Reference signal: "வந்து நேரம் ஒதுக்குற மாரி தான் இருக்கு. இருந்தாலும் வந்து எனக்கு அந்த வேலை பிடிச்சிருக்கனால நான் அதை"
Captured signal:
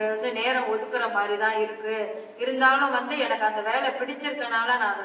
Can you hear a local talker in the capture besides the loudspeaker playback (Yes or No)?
No